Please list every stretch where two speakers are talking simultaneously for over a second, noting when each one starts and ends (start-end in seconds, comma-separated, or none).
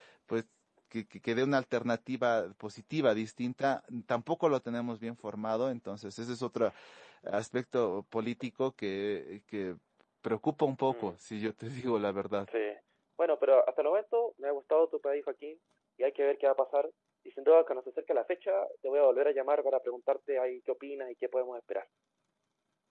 none